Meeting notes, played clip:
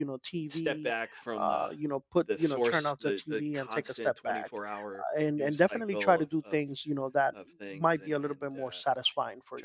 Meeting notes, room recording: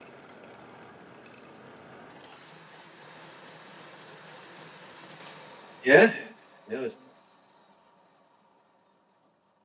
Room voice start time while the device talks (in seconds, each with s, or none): 5.8 s